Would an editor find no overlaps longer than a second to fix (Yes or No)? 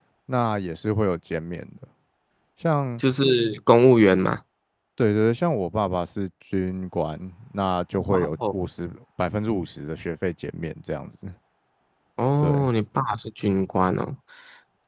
Yes